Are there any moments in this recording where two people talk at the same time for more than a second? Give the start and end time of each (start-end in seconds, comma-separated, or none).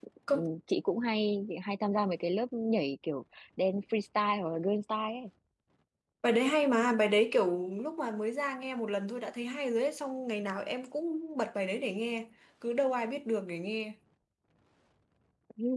none